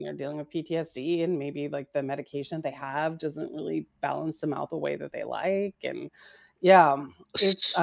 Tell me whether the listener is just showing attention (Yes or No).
Yes